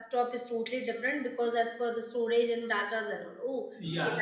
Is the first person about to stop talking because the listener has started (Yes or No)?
Yes